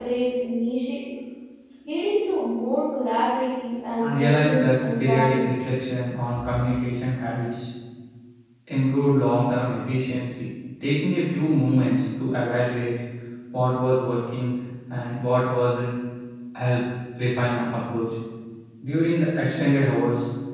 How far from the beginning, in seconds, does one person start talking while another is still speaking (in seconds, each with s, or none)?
4.0 s